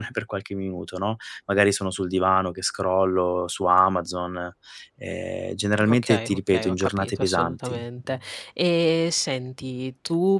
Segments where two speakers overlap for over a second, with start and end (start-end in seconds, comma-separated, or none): 5.8-7.8